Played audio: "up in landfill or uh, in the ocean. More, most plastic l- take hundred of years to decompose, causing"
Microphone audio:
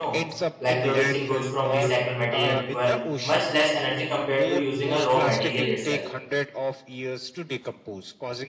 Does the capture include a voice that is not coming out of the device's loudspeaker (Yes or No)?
Yes